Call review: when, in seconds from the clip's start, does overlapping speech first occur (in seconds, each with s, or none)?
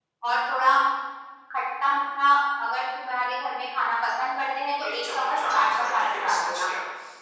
4.8 s